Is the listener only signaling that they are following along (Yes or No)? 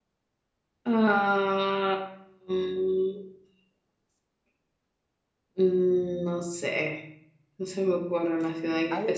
No